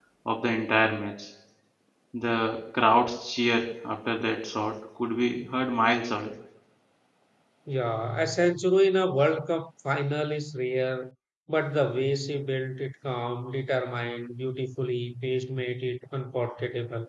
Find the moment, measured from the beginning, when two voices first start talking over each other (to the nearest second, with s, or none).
none